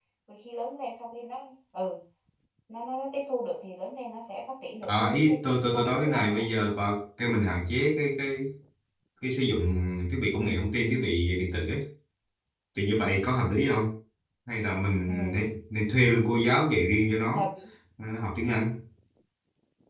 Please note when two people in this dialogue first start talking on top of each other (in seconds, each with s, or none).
4.8 s